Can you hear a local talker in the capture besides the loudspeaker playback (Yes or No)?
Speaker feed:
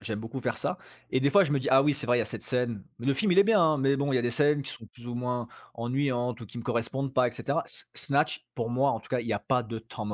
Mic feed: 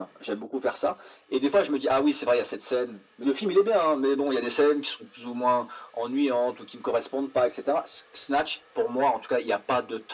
No